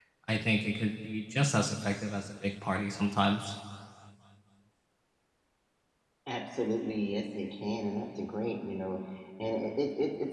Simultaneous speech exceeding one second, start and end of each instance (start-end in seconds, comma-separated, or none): none